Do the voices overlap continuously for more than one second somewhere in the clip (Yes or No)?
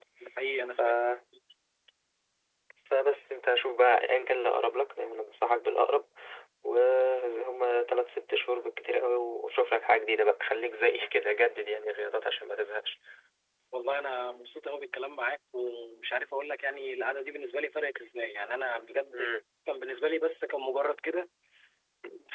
No